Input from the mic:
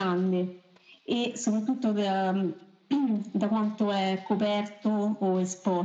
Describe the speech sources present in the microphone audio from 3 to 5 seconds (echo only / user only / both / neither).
echo only